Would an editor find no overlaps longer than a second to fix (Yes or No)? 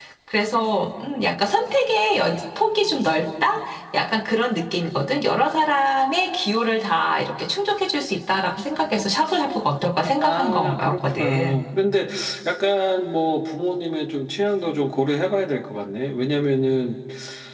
No